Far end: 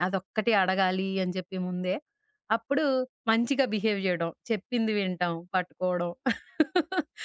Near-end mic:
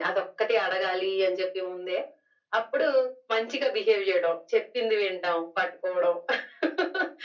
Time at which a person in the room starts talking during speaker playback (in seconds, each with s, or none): none